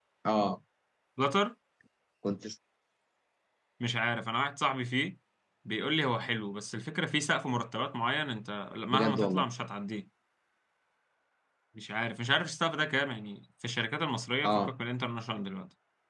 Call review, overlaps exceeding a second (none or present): none